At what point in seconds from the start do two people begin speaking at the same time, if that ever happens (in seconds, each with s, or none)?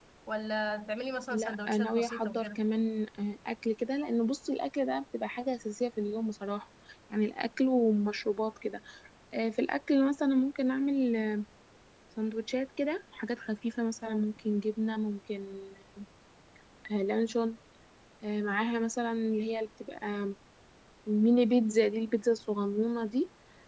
1.3 s